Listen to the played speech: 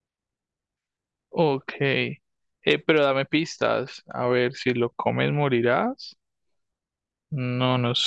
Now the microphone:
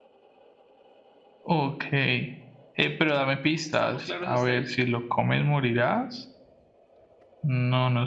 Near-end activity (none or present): present